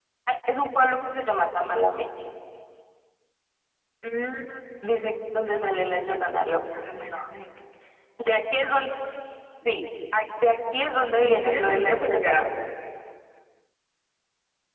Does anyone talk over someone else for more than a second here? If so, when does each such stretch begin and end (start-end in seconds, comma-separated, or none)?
11.2-12.4